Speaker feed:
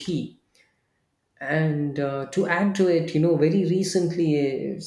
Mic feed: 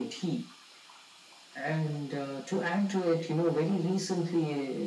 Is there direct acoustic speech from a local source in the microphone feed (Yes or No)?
No